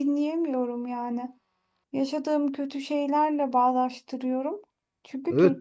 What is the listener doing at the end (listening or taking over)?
taking over